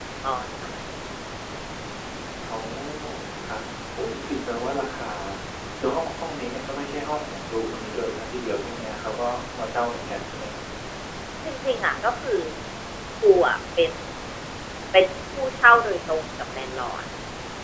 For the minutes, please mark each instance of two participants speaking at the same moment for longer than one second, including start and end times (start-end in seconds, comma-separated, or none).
none